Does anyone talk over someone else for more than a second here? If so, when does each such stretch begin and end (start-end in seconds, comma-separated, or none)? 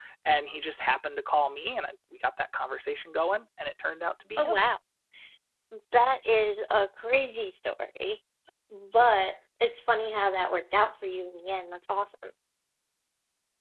none